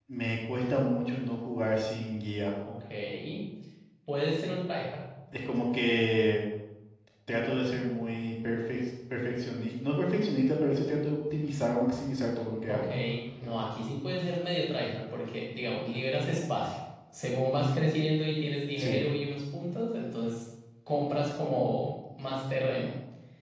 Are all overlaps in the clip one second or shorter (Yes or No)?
Yes